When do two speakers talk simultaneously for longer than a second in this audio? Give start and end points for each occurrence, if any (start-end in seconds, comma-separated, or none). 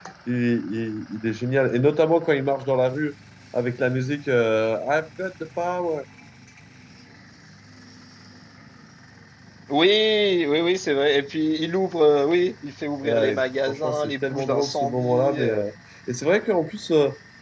13.0-15.6